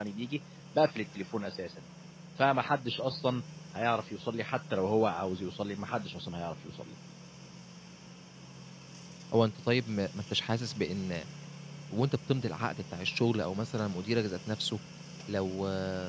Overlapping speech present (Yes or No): No